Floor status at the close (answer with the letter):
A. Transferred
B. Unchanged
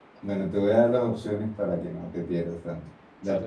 B